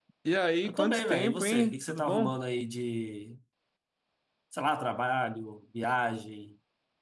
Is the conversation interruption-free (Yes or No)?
No